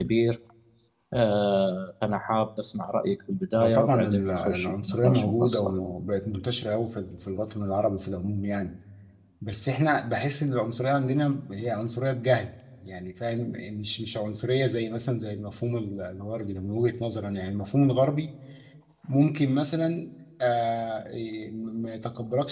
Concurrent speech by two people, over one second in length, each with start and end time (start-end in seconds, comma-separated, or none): 3.5-5.7